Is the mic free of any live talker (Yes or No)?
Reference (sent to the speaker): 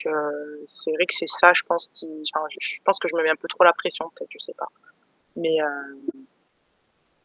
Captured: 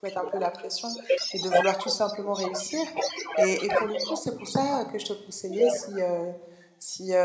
No